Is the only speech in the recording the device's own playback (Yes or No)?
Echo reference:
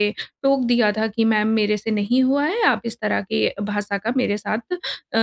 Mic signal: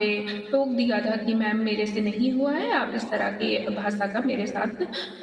Yes